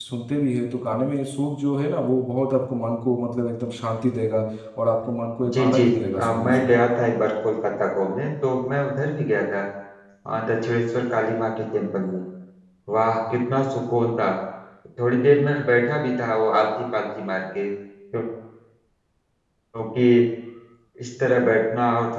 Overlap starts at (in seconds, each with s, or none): 5.4 s